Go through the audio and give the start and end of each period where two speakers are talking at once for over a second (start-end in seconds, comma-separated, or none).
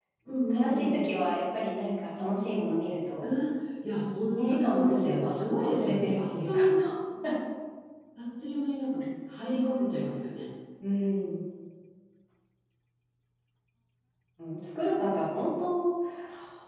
4.4-6.7